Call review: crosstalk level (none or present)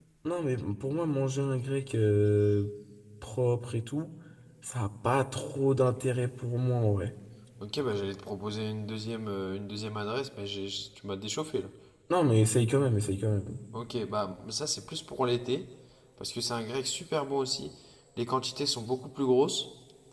none